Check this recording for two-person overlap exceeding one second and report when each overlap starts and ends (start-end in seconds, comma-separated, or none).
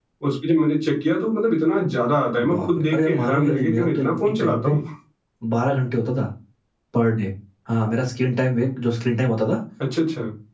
2.5-4.8